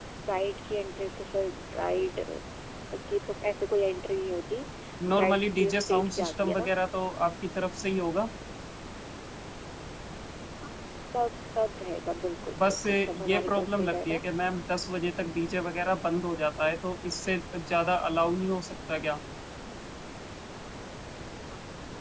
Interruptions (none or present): present